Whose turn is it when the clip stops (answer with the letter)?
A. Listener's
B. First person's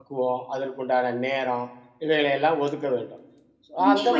A